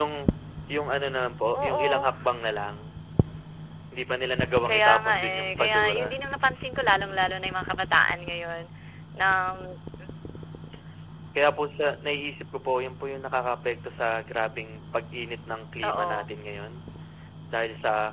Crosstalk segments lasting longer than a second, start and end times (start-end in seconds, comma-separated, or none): 4.7-6.2